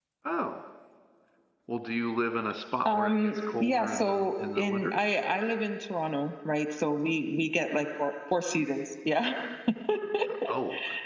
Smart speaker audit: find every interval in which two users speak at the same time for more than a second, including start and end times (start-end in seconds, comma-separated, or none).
2.8-5.0